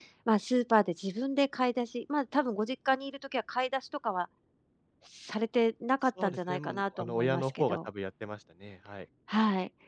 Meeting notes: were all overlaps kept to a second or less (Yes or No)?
No